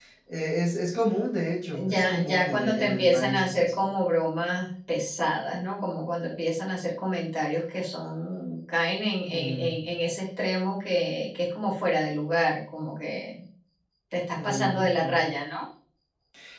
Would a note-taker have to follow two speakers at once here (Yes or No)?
Yes